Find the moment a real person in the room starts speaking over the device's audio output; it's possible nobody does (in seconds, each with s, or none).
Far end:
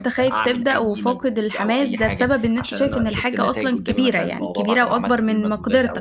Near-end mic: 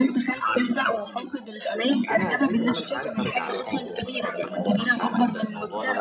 2.1 s